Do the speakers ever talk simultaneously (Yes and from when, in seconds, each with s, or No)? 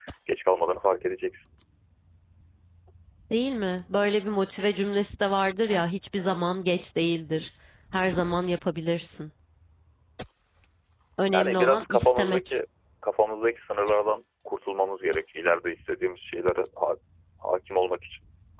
Yes, from 11.3 s